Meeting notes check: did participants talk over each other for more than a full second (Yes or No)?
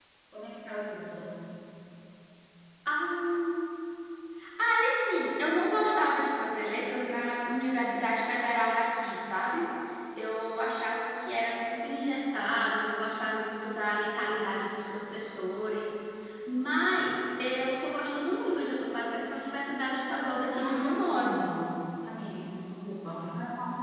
Yes